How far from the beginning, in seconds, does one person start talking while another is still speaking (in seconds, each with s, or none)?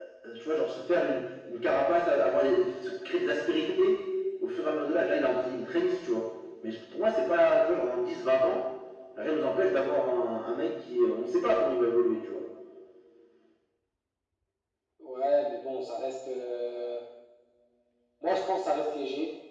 none